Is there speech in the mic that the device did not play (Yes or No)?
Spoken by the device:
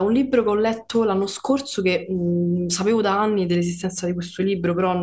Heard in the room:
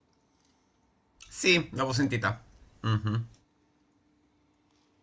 Yes